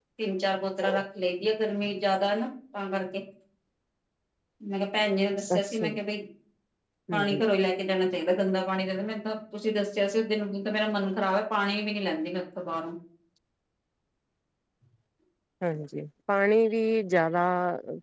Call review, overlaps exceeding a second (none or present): none